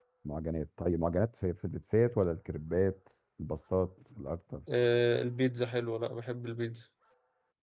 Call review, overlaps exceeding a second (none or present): none